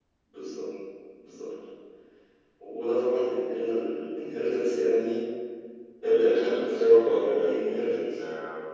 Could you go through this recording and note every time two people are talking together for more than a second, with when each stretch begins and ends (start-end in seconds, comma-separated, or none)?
6.0-8.0